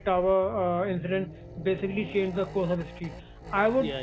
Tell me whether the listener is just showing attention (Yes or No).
Yes